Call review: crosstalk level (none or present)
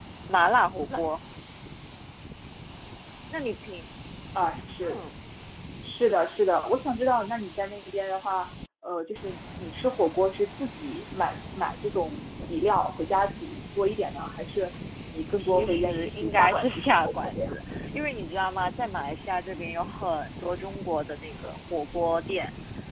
present